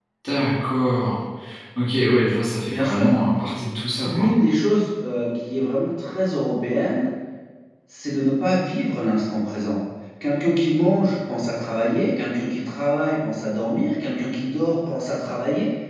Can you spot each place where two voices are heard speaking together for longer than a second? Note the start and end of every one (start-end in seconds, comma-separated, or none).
none